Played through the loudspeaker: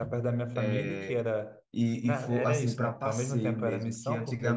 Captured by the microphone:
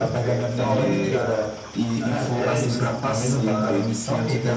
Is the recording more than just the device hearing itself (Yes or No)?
Yes